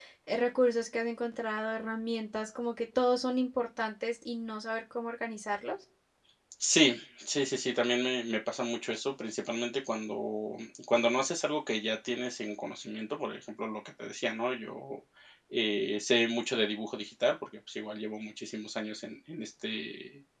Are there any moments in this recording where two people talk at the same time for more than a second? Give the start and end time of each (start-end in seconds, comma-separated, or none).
none